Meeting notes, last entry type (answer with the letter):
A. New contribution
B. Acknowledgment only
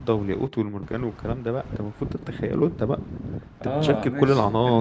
A